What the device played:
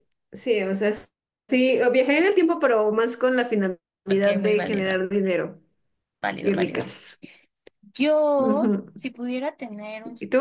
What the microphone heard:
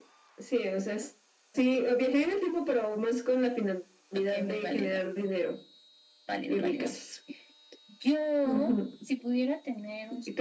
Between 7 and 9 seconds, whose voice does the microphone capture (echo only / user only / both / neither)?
echo only